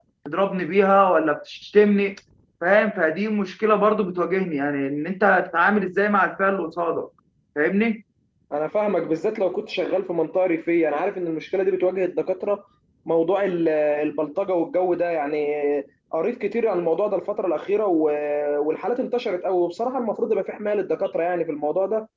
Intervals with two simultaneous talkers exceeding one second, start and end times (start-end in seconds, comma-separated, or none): none